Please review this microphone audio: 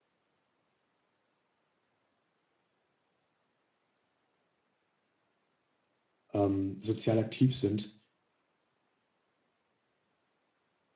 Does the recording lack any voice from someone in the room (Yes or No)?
No